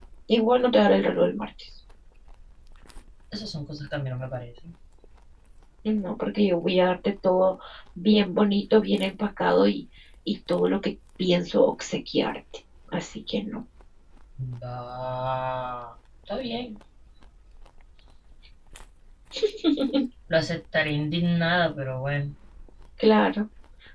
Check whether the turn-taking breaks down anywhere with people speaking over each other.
No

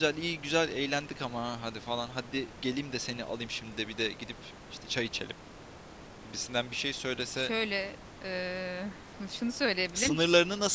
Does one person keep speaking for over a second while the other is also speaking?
No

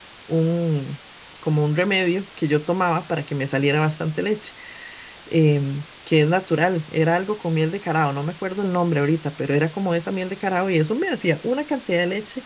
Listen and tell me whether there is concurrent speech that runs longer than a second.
No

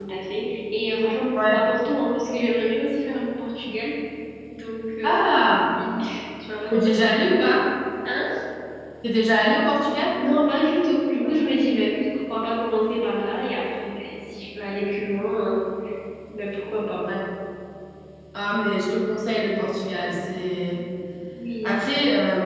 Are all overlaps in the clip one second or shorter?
Yes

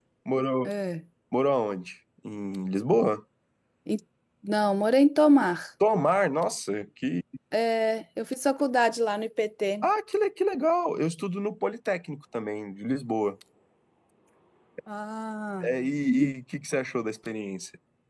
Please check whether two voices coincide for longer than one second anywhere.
No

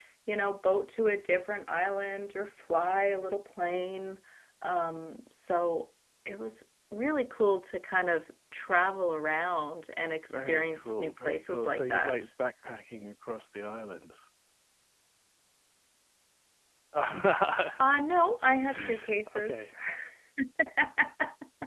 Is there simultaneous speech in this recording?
Yes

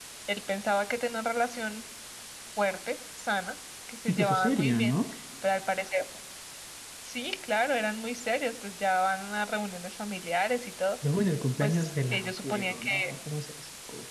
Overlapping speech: Yes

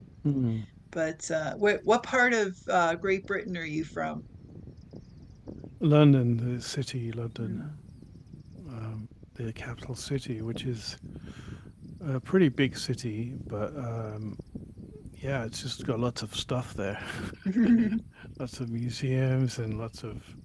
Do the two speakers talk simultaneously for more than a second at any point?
No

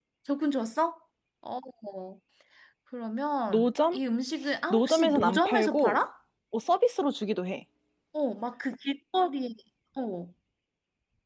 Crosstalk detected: Yes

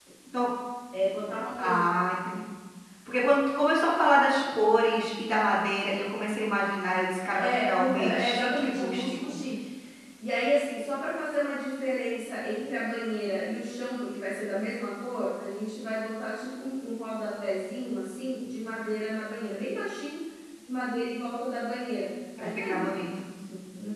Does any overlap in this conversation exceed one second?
Yes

